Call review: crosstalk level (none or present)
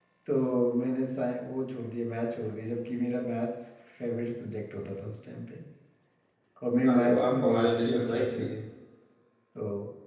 present